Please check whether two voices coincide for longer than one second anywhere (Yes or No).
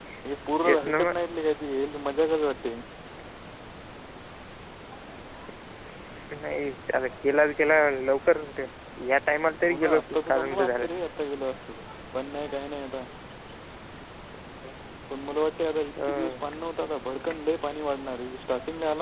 Yes